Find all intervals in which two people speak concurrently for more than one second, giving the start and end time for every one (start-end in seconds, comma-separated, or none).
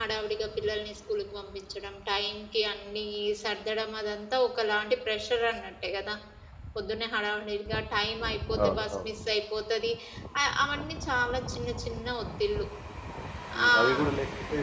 none